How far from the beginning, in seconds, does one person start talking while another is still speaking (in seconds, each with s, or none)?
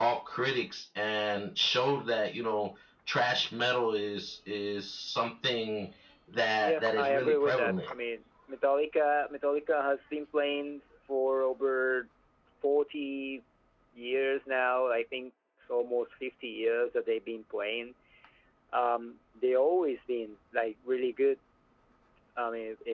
6.6 s